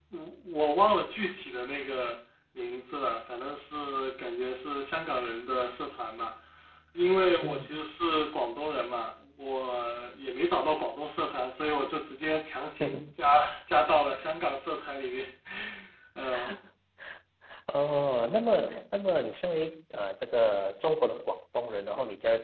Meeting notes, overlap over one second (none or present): none